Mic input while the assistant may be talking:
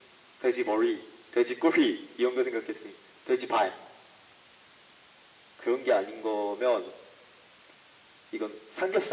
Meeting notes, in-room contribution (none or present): none